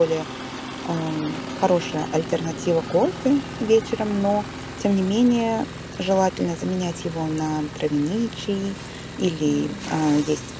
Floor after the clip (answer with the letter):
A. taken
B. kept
B